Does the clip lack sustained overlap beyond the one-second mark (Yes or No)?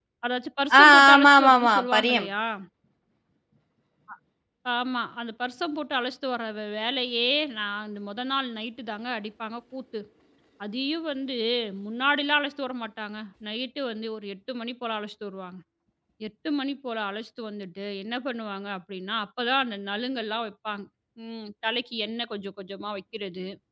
No